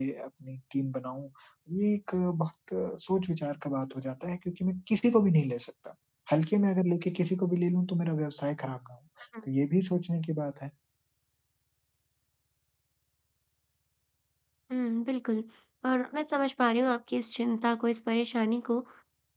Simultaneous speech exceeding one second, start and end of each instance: none

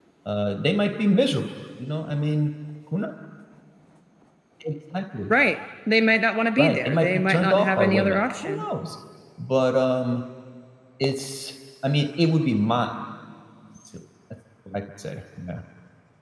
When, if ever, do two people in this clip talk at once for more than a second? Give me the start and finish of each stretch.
6.6-8.6

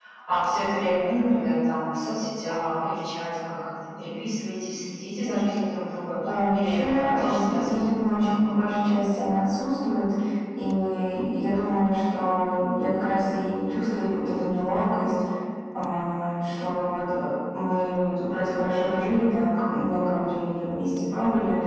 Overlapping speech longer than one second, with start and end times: 6.5-8.5

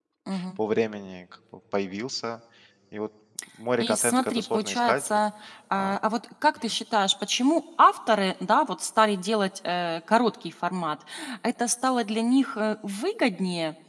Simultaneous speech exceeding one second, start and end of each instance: 3.8-5.2

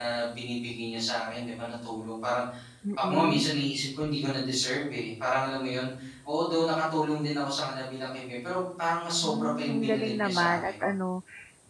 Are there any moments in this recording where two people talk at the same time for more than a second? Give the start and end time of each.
9.2-10.7

